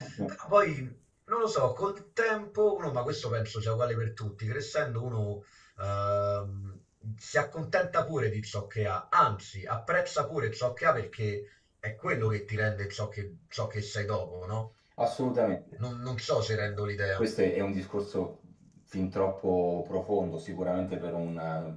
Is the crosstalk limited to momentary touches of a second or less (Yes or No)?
Yes